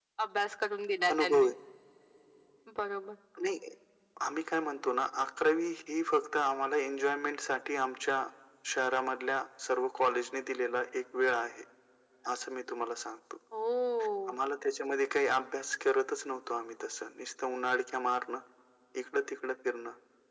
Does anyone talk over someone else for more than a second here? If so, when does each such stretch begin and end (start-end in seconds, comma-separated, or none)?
none